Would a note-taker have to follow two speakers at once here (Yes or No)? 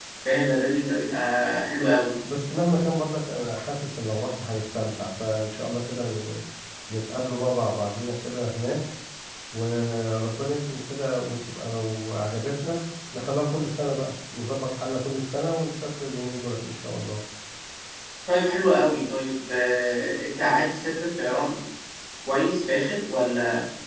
No